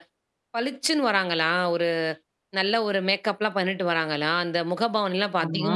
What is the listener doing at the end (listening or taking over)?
listening